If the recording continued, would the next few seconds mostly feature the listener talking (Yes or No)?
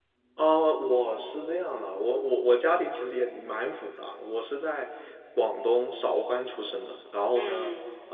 No